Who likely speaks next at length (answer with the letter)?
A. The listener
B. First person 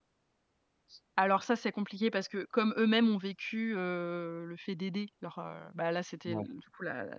B